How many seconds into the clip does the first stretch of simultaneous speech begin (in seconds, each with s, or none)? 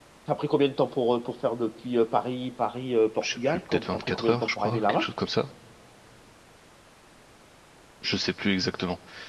3.2 s